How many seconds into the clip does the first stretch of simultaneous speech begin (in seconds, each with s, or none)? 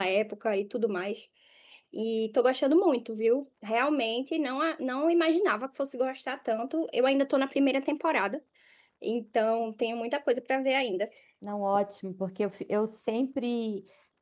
none